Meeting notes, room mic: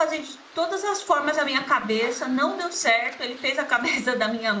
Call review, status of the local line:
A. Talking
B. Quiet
A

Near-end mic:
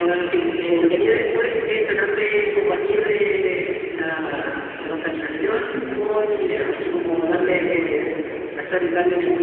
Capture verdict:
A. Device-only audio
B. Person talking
A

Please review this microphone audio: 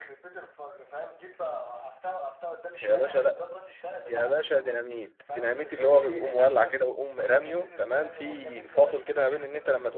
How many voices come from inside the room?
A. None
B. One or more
B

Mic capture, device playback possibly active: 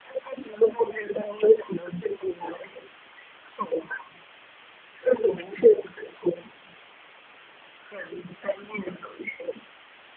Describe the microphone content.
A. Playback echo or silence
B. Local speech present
A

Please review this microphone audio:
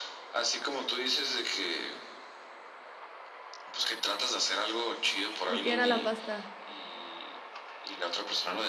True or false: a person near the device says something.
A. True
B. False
A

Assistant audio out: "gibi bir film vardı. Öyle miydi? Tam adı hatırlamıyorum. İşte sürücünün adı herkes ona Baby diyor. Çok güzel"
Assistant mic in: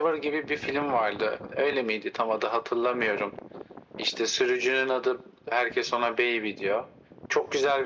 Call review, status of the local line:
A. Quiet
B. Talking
A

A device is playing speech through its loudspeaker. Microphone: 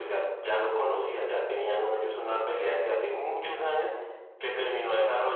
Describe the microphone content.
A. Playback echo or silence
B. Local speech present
A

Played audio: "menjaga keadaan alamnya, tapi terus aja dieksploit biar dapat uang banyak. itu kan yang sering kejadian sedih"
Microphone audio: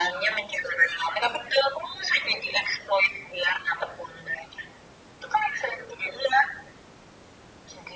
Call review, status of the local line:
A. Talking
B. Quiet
B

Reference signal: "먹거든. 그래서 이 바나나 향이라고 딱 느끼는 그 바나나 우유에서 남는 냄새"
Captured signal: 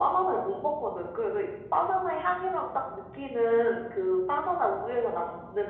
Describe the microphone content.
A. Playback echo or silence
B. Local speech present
A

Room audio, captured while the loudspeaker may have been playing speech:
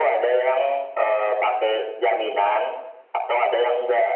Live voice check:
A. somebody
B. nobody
B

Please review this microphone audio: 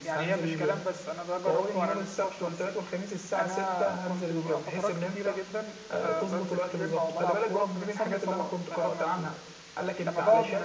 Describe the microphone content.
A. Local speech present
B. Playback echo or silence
A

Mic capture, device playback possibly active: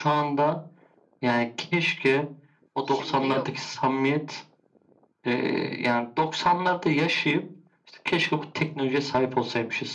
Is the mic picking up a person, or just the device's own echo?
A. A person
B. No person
A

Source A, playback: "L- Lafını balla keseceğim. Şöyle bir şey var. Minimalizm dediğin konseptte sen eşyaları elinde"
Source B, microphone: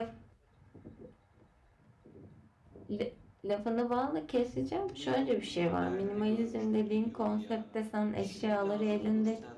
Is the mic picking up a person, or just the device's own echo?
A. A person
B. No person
A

